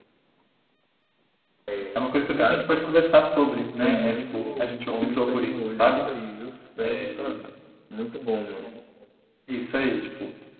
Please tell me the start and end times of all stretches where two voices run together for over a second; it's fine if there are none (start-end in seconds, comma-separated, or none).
3.8-6.0